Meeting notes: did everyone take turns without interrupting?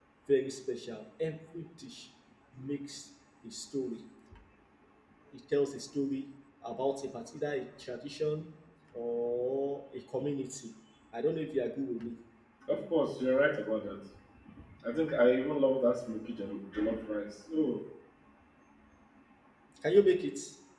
Yes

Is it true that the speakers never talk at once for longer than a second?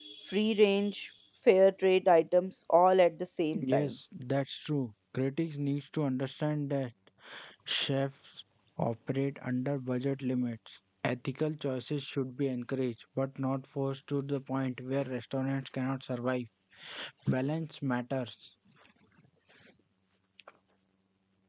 Yes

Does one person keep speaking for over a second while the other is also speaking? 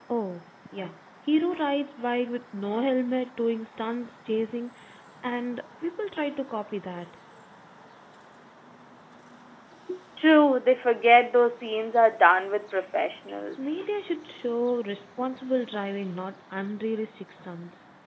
No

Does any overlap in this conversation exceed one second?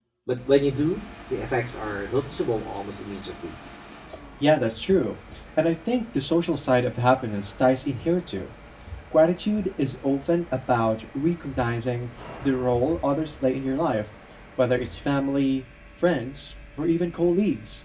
No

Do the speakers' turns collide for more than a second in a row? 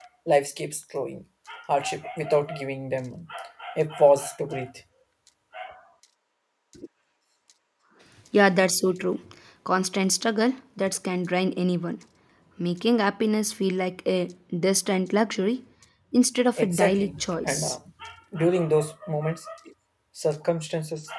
Yes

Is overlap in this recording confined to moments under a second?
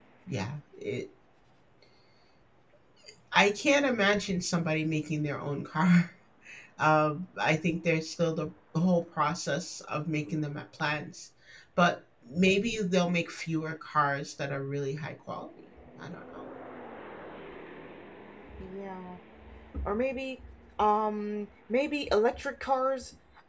Yes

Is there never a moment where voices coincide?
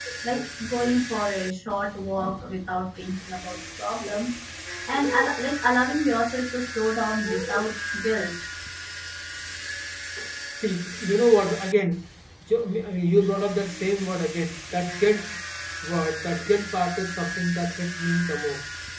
Yes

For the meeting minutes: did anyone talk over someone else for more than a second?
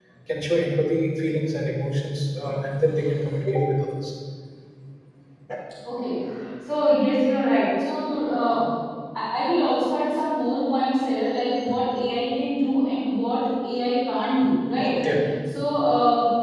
No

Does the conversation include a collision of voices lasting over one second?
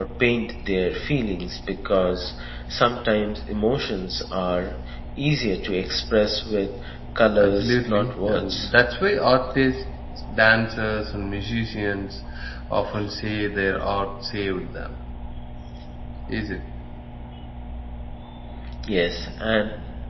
Yes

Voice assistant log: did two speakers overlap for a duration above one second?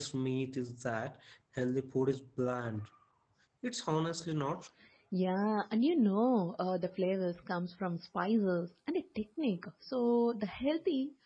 No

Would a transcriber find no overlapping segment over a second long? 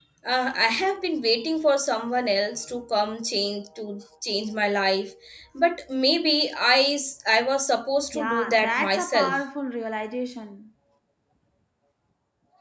No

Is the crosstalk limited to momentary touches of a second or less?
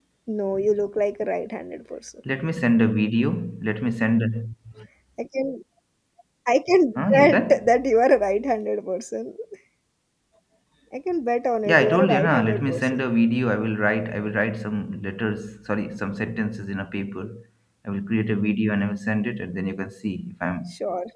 No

